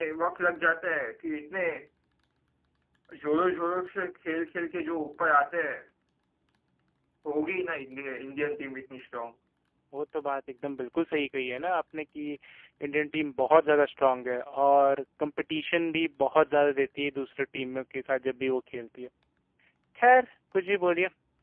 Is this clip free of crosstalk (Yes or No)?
Yes